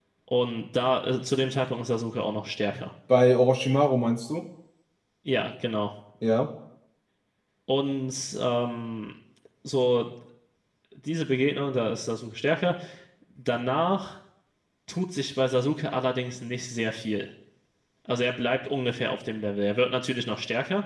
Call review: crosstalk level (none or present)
none